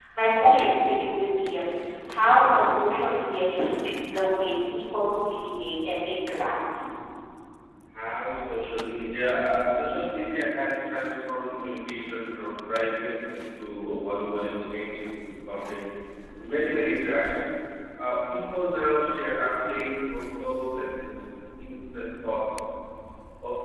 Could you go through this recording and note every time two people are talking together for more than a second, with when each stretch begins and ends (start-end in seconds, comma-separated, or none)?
none